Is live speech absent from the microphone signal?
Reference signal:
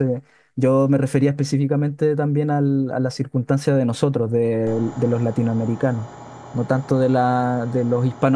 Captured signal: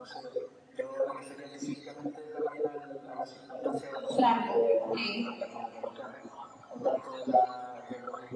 No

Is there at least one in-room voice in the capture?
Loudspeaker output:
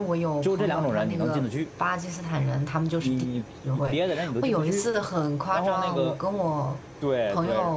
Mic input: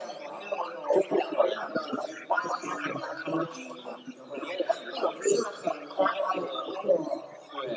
Yes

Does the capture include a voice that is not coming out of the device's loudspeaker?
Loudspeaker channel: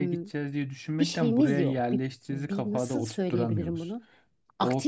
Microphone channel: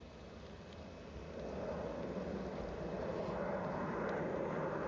No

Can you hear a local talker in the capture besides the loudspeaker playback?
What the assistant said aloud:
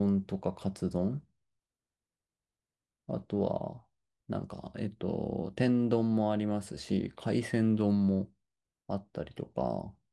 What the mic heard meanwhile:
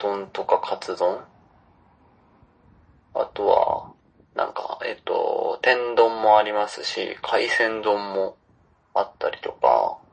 No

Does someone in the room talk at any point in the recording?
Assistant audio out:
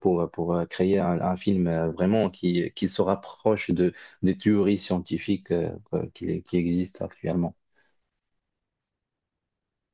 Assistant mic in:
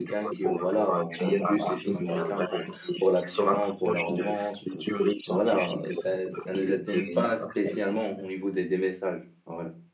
Yes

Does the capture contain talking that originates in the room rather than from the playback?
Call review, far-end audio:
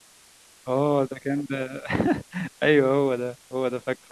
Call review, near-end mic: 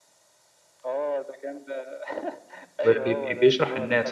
Yes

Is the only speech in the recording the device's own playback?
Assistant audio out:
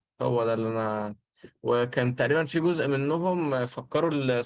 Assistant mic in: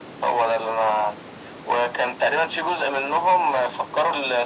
Yes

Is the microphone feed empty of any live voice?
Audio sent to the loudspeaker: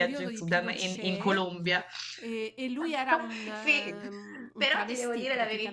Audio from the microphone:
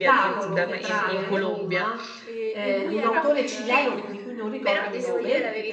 No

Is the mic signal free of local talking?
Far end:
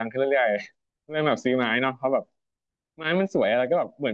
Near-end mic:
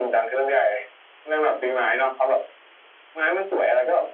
Yes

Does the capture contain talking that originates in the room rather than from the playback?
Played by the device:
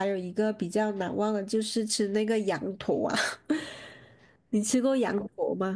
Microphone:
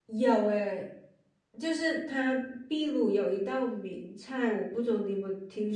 Yes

